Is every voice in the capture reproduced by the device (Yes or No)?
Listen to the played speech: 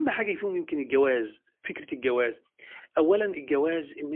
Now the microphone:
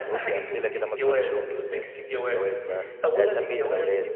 No